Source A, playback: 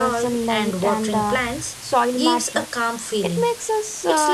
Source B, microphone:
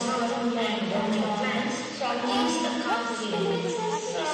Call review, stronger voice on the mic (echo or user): echo